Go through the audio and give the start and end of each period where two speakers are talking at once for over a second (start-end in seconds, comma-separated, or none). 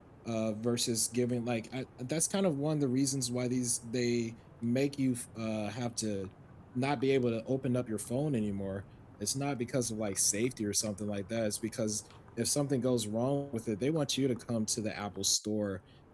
none